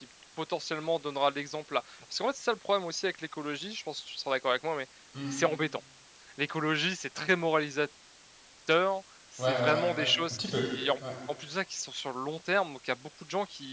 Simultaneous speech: Yes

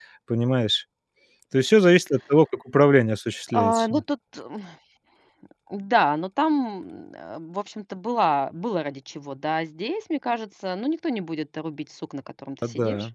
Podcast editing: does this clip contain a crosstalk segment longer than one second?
No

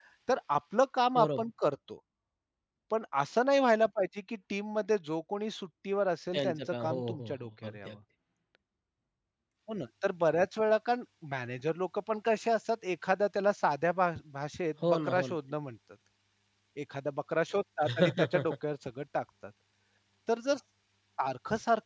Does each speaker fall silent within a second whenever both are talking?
No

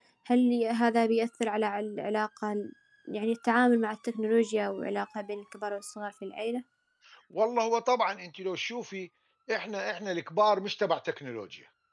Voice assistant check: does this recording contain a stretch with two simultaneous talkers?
No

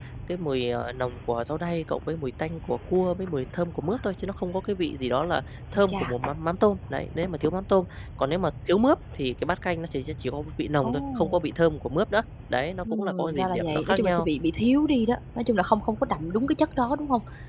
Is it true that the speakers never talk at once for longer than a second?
No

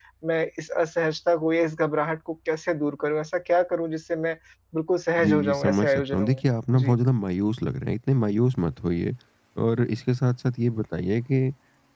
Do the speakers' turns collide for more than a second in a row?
Yes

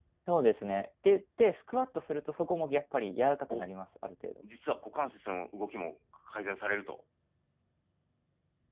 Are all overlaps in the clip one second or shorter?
Yes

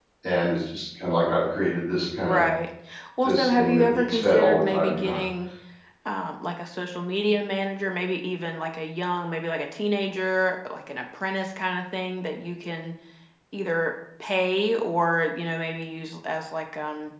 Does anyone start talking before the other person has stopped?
Yes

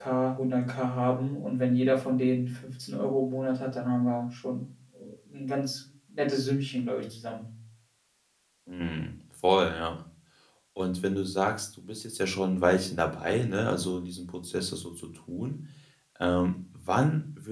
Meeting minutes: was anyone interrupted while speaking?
No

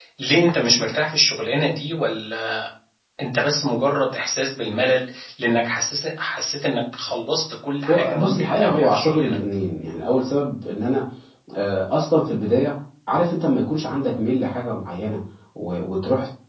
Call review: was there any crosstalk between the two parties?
Yes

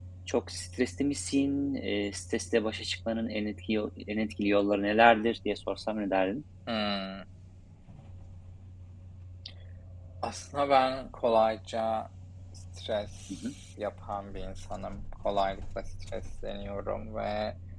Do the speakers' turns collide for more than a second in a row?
No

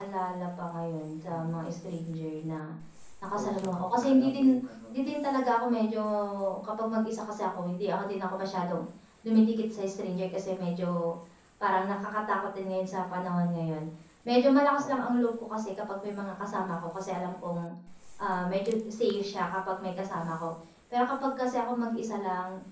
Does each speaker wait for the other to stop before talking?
No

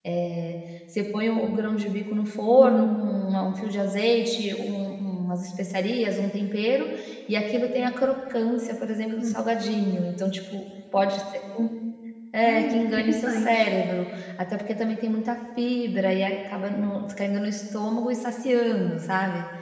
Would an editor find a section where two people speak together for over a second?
Yes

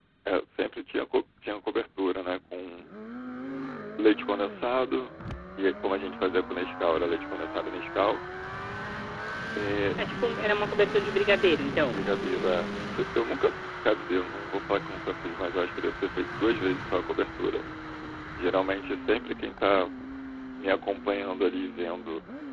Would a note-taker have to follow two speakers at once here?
No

